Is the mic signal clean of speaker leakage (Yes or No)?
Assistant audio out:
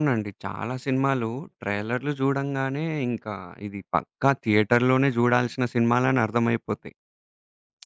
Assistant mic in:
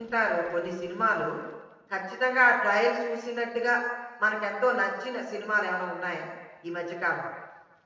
Yes